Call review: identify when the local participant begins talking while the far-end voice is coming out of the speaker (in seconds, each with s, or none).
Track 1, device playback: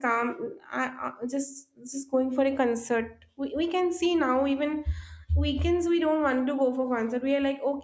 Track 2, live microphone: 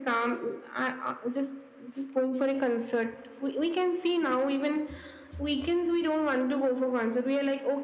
none